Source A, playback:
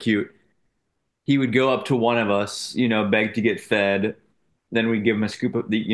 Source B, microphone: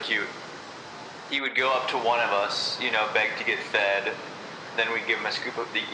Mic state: echo only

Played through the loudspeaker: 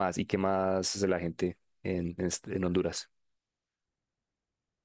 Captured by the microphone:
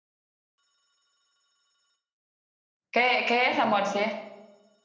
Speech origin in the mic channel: user only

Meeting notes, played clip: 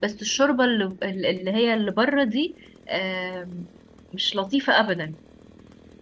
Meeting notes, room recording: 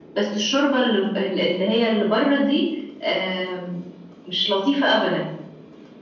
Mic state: echo only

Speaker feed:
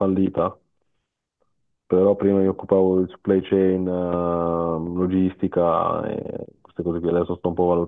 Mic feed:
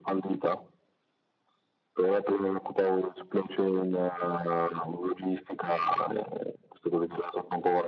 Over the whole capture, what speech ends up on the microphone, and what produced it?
echo only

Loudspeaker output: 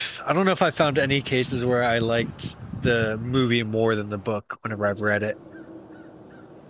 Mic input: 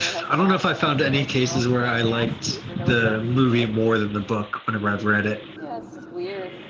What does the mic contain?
both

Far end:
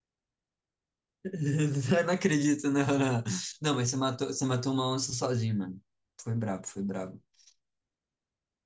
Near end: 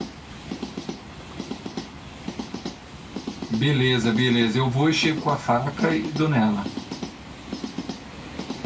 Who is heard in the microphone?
user only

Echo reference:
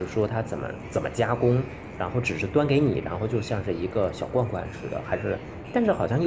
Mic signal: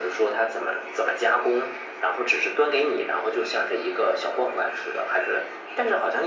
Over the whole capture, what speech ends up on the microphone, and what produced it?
echo only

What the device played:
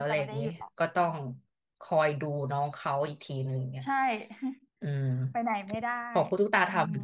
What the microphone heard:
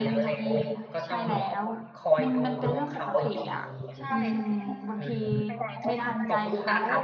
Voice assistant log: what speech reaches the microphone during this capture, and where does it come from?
both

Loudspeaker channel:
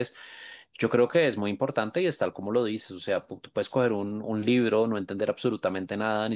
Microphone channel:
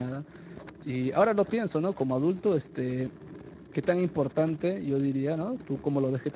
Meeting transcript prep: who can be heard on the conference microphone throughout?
user only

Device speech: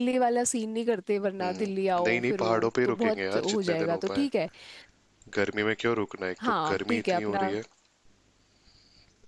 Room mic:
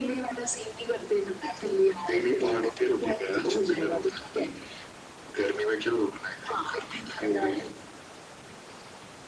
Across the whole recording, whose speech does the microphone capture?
echo only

